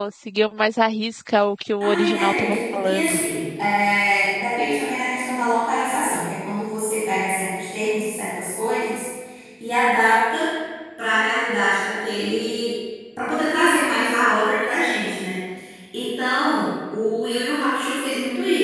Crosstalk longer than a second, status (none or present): present